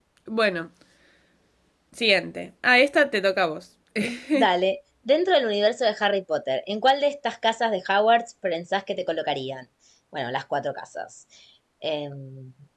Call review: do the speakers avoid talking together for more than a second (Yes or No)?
Yes